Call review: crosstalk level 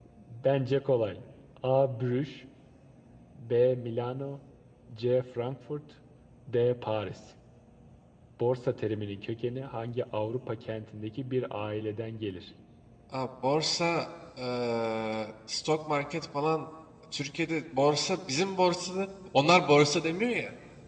none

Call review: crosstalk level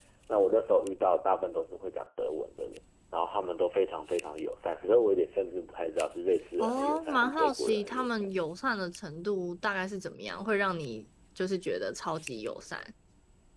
present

